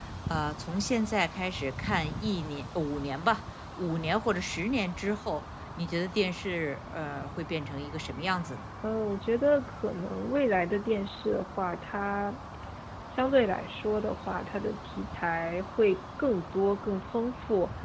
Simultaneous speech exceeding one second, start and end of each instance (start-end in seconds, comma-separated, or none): none